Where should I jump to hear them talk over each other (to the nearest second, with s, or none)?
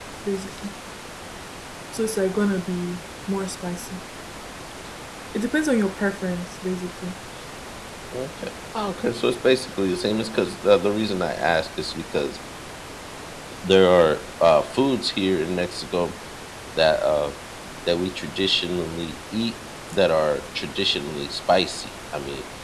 none